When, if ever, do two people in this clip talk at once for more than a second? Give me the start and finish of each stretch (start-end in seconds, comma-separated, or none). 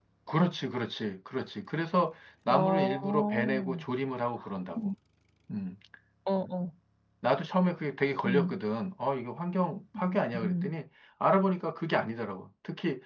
2.5-3.8